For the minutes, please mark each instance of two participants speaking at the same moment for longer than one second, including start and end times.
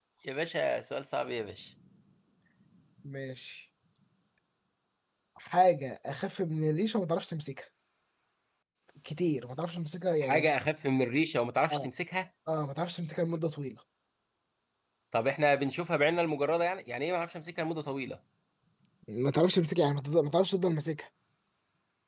none

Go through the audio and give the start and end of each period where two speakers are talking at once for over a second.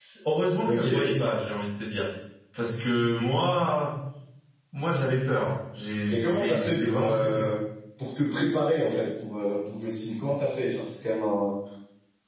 6.1-7.5

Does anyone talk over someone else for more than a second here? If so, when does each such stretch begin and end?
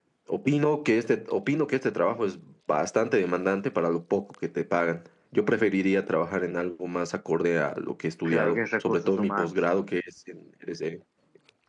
8.2-9.5

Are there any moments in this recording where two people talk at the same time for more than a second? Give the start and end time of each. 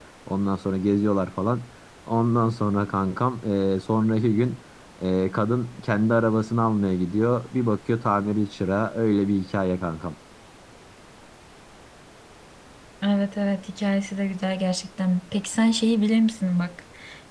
none

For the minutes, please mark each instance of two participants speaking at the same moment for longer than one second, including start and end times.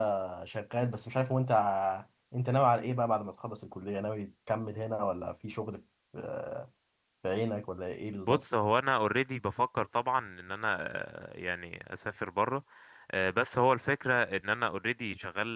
none

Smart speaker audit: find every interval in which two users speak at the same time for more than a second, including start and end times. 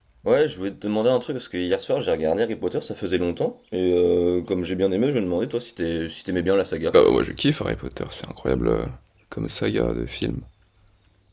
none

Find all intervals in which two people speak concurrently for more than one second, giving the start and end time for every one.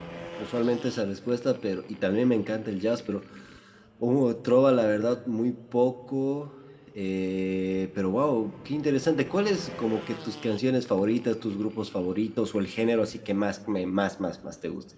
none

